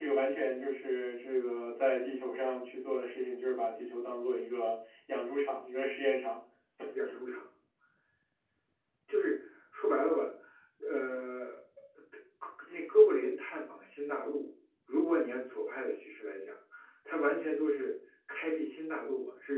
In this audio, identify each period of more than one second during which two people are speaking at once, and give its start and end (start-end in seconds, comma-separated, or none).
none